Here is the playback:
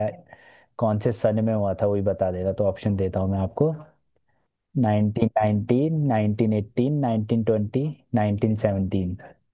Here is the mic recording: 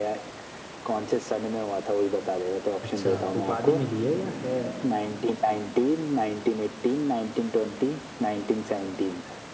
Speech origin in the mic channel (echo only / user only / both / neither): both